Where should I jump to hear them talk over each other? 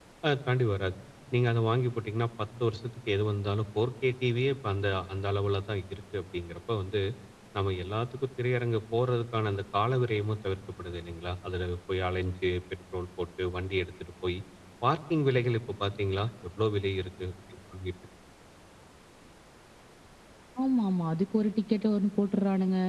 none

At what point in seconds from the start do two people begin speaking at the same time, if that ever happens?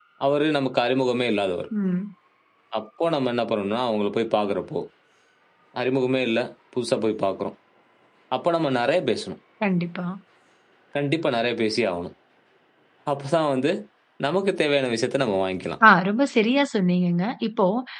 none

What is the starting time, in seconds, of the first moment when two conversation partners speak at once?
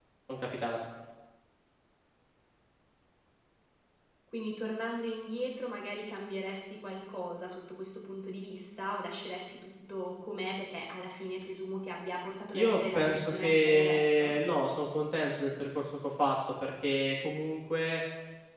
12.5 s

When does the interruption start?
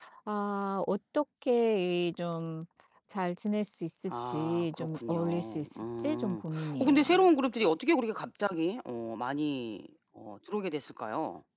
4.1 s

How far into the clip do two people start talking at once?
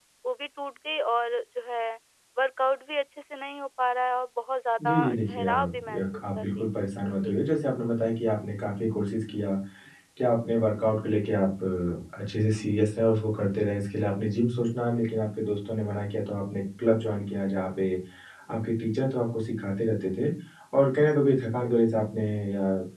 4.8 s

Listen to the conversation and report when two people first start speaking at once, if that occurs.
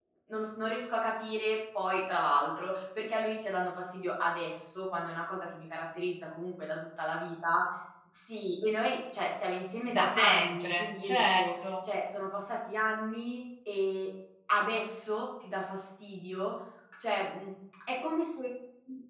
9.9 s

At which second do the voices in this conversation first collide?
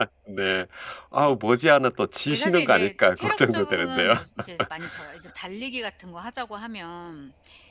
2.3 s

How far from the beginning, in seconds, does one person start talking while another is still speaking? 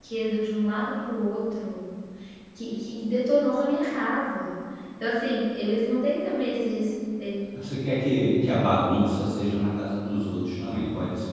none

